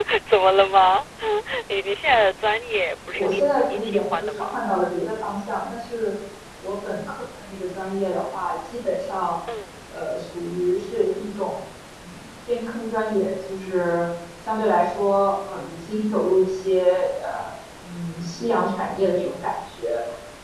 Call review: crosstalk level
present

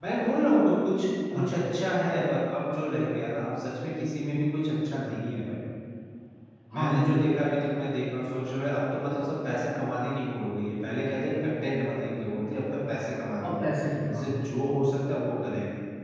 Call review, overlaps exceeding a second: none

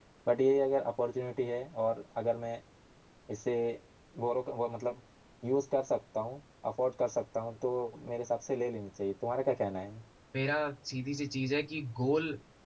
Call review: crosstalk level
none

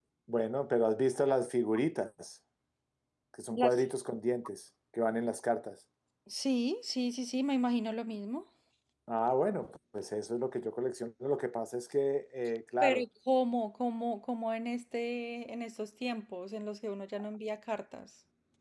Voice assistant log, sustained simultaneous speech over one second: none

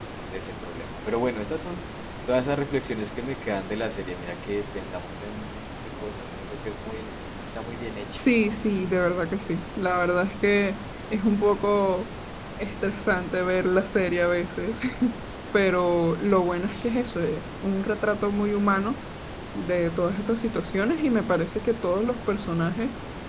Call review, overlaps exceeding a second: none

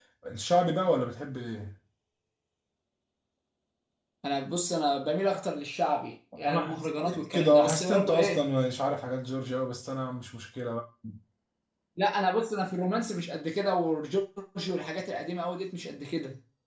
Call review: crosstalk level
present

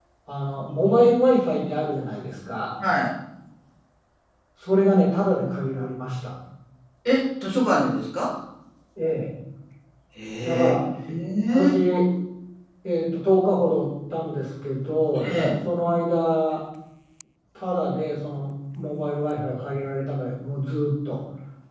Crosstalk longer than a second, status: none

